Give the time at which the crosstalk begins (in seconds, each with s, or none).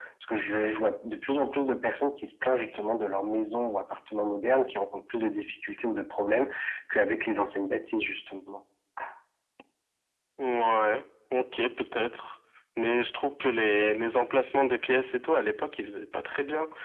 none